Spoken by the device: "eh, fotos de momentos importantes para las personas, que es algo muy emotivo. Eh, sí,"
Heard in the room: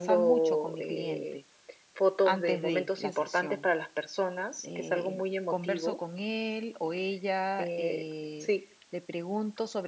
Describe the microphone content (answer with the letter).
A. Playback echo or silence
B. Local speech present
B